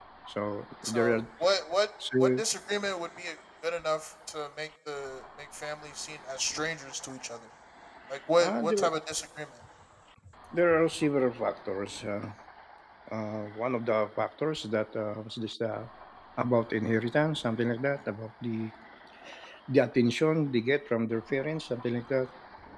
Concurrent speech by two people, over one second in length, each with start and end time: none

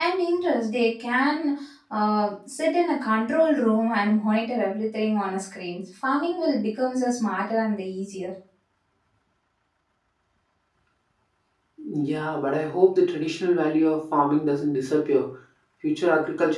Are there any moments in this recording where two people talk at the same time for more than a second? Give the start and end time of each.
none

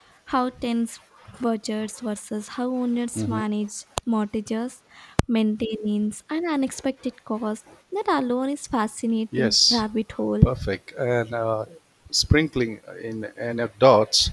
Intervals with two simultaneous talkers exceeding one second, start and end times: none

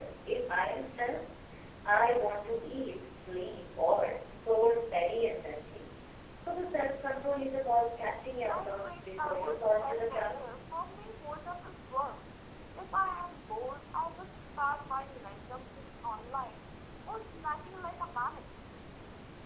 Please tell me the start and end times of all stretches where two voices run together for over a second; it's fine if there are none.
8.5-10.3

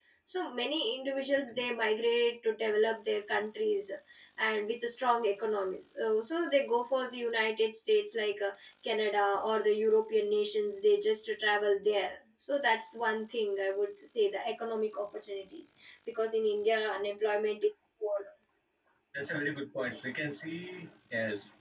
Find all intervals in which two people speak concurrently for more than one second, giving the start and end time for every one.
none

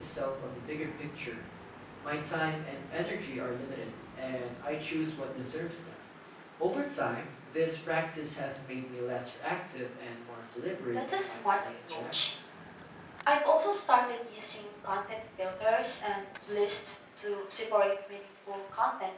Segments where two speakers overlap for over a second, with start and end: 10.9-12.3

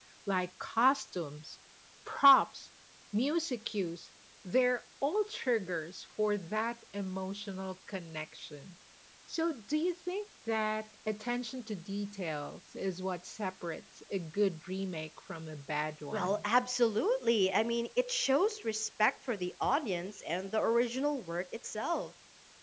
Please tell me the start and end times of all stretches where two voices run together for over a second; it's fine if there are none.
none

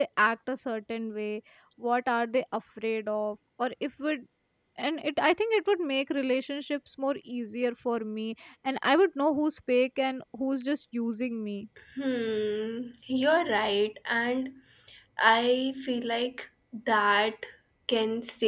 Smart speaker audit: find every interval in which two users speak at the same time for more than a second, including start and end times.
none

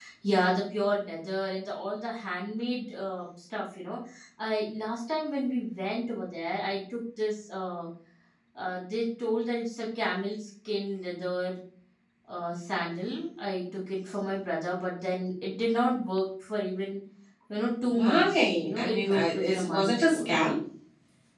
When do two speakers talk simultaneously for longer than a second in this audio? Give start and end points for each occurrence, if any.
17.9-20.5

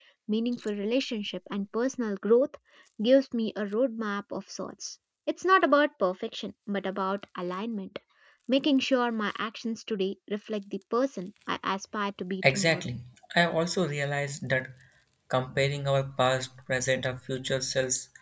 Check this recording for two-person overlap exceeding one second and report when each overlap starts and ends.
none

